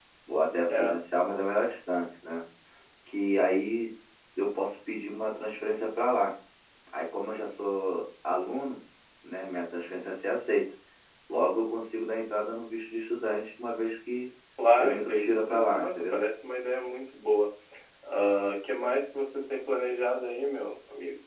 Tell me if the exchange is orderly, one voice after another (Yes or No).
No